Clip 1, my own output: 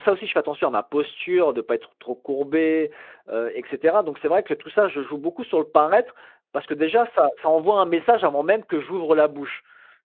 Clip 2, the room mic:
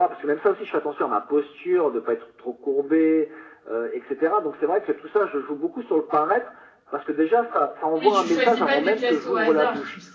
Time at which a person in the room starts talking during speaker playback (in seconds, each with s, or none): 8.0 s